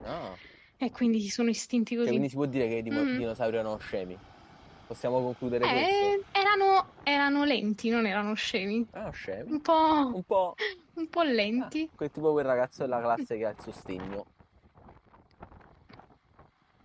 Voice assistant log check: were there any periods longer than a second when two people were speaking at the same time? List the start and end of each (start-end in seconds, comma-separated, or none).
none